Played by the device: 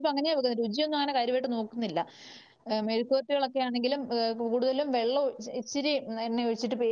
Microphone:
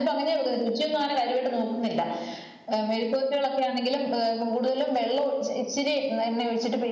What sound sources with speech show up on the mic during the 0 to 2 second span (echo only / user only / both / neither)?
echo only